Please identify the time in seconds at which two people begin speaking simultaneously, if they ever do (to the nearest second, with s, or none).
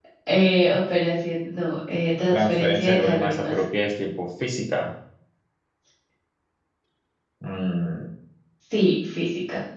2 s